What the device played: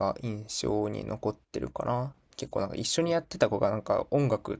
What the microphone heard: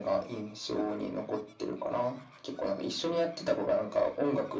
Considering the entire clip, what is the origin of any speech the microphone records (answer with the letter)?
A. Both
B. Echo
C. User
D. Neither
B